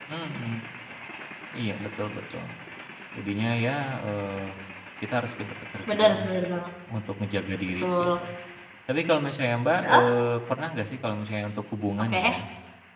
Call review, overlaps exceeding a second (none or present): none